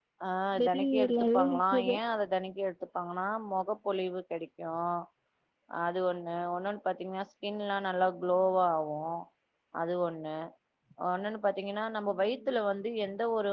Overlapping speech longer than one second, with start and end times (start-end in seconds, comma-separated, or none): 0.6-1.9